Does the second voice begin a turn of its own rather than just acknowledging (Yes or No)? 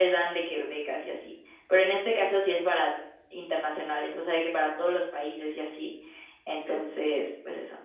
No